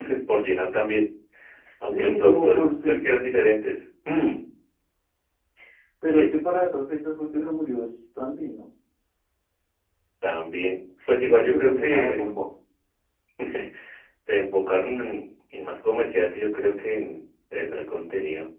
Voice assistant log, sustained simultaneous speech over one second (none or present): present